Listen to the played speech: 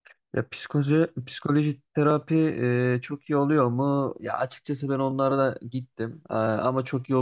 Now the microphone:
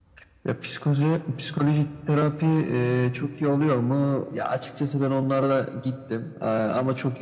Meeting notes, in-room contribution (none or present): none